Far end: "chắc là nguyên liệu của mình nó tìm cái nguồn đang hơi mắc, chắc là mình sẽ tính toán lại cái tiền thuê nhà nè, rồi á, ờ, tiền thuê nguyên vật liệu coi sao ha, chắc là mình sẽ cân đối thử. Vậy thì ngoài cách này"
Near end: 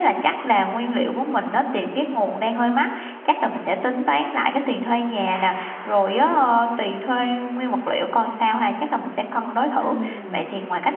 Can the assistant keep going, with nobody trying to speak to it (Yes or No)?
No